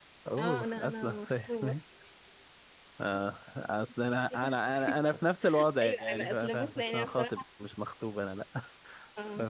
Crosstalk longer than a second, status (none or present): present